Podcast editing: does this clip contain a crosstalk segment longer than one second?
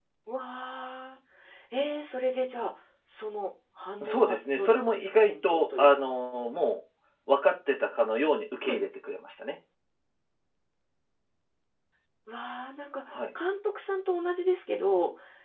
Yes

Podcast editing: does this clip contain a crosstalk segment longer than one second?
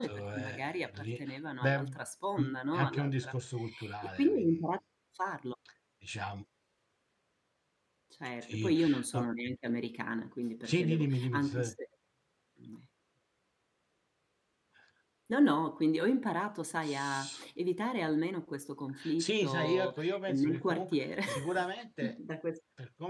Yes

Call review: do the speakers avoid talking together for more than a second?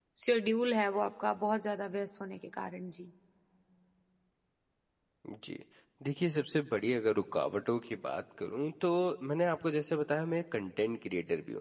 Yes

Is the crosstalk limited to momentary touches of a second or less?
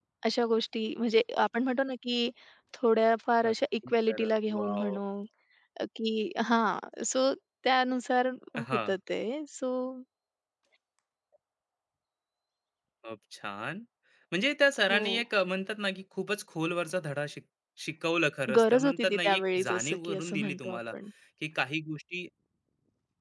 No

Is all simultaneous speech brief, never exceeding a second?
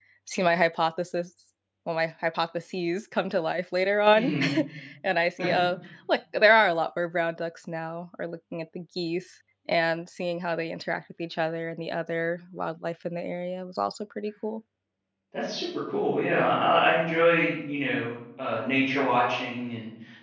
Yes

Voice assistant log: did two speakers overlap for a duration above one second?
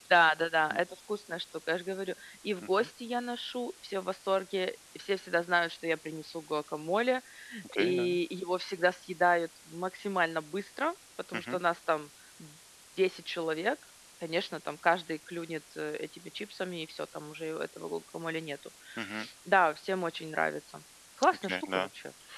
No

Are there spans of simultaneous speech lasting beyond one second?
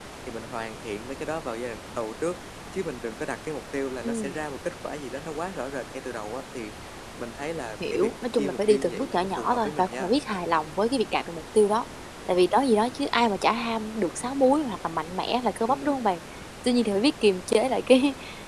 Yes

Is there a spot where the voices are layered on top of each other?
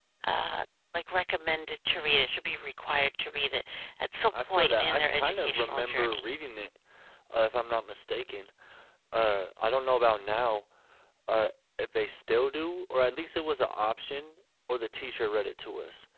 Yes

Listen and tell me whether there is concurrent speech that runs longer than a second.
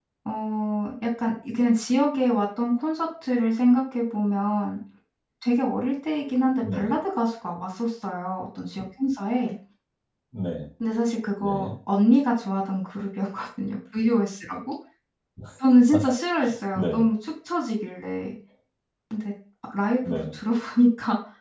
No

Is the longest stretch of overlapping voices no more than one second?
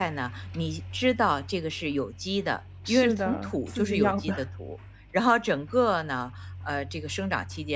No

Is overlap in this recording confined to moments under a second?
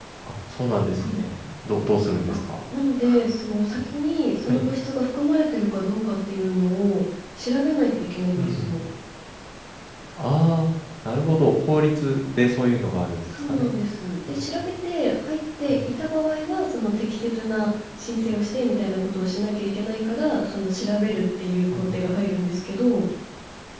Yes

